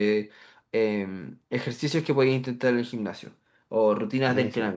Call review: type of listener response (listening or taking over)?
listening